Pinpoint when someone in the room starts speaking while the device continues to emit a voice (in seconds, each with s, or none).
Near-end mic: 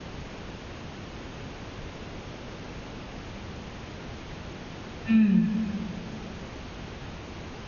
5.1 s